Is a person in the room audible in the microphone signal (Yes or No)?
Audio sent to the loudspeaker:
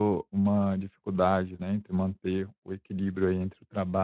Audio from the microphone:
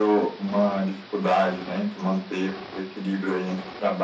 No